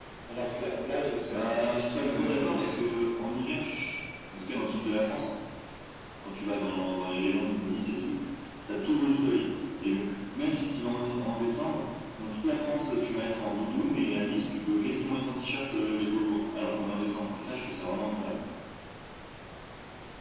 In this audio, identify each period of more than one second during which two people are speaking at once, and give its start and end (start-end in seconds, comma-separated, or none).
1.3-2.7